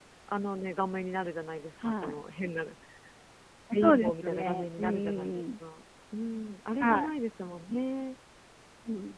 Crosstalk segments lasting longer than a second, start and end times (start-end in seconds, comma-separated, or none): 3.8-5.4